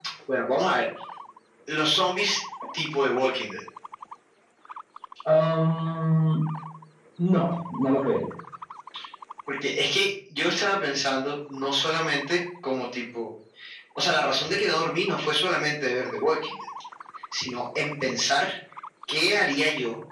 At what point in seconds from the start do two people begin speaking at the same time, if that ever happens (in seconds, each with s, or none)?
none